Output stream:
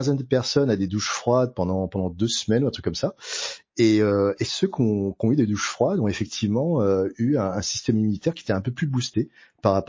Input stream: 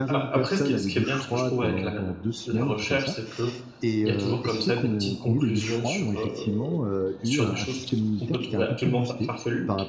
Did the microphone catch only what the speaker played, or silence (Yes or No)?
No